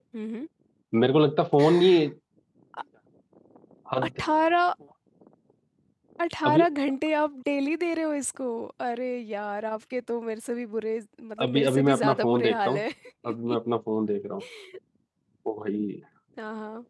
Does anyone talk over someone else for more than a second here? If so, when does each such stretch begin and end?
11.4-12.8

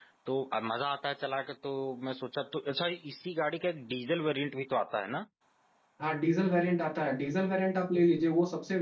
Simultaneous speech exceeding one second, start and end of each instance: none

